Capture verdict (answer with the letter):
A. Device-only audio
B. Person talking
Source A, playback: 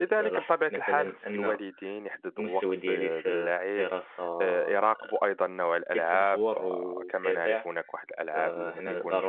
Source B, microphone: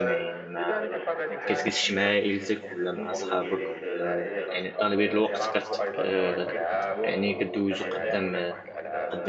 B